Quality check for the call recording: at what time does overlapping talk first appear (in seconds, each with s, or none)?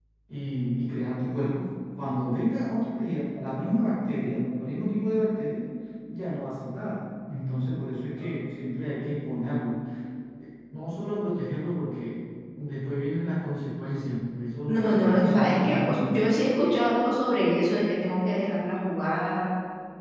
14.7 s